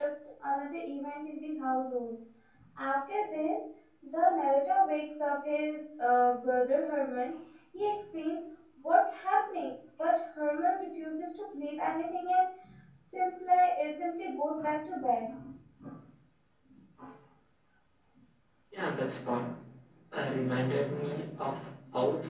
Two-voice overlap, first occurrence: none

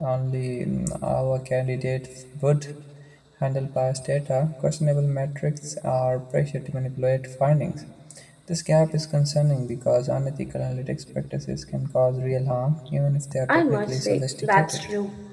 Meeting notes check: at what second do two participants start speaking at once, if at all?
13.5 s

